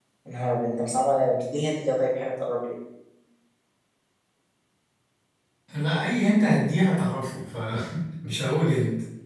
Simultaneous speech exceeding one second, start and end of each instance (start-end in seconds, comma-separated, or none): none